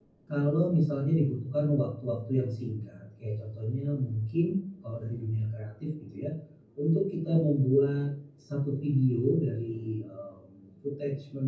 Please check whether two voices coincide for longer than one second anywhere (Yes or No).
No